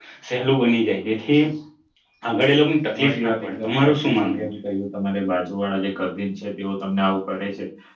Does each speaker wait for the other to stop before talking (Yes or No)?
No